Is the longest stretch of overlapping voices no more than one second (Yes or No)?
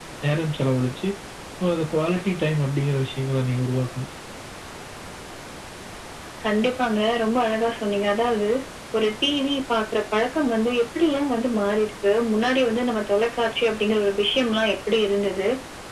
Yes